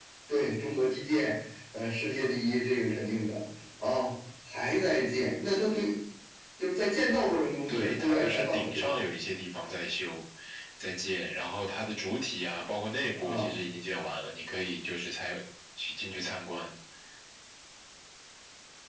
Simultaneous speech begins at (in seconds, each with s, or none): 7.7 s